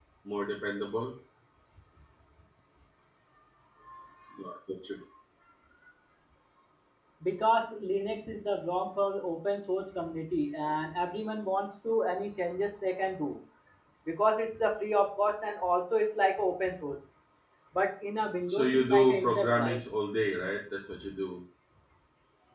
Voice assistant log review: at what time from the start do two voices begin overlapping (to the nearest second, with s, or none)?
18 s